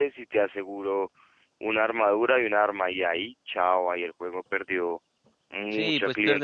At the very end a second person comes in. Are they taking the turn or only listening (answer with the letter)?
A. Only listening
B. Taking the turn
B